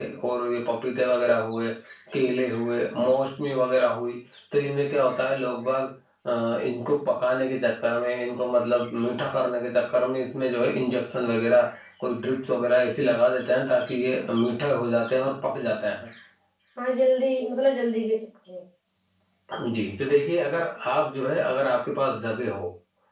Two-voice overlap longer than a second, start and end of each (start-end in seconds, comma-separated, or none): none